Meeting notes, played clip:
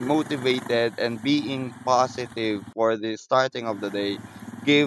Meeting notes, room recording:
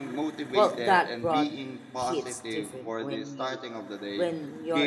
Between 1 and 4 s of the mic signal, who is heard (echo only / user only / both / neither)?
both